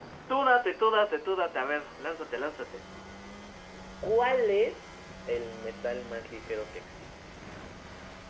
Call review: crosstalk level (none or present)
none